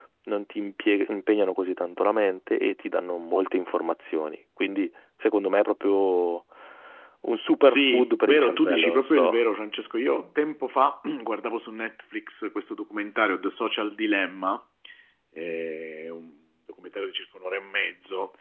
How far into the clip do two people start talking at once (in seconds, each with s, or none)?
7.6 s